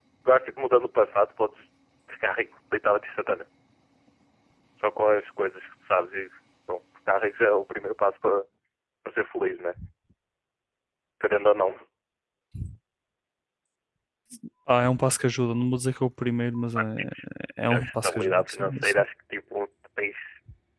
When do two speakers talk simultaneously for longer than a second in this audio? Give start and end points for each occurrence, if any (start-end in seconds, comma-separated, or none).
17.7-19.0